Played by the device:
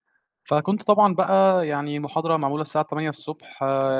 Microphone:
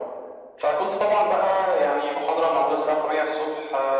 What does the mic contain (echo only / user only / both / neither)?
echo only